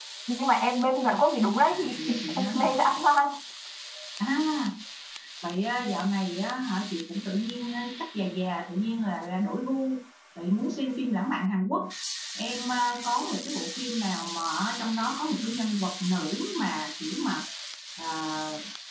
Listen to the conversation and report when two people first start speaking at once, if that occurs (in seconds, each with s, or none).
1.6 s